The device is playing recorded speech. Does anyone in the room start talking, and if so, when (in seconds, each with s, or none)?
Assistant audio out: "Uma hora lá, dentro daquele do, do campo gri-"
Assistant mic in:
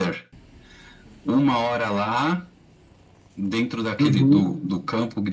4.0 s